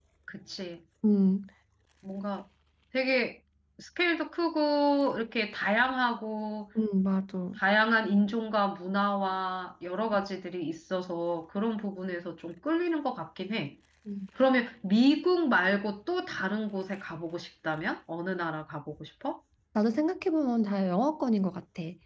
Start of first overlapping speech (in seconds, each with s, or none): none